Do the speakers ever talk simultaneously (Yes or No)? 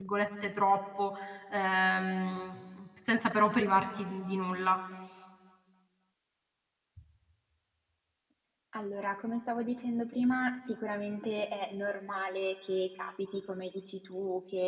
No